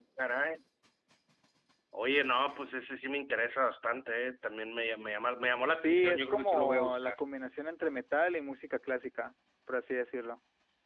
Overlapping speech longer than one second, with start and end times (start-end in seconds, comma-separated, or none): 5.7-7.1